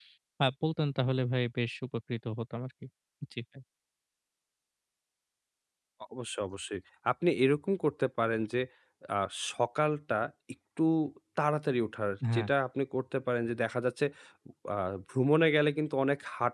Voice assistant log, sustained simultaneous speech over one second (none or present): none